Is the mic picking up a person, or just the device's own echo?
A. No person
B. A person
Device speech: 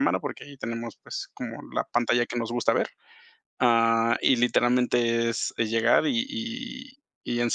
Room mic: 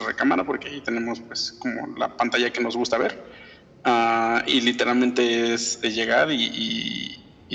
A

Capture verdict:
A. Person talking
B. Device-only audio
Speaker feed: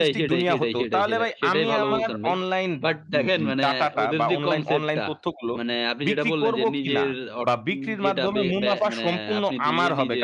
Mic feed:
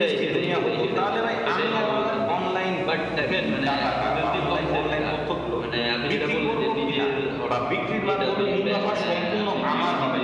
B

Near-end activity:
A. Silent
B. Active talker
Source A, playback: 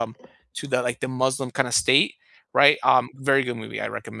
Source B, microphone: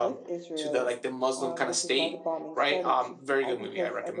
B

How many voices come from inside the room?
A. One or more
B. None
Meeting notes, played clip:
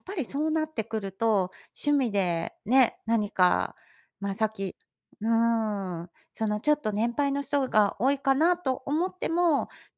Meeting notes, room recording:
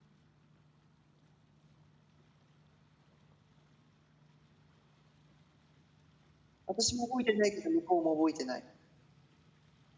A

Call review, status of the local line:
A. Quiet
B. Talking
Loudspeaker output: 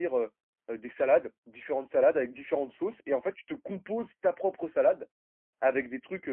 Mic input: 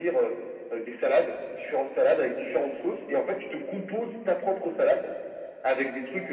A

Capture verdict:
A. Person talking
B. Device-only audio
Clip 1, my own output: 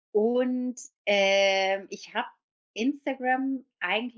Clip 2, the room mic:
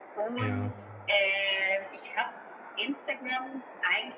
A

